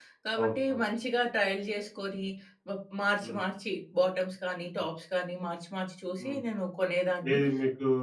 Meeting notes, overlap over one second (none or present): none